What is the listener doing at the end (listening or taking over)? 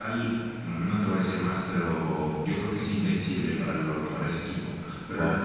listening